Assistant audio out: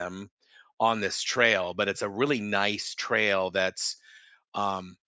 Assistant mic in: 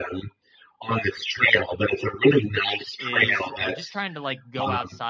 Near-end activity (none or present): present